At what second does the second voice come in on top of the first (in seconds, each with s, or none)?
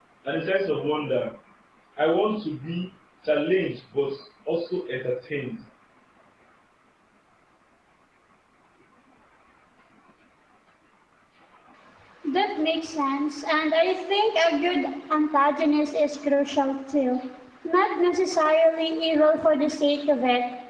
none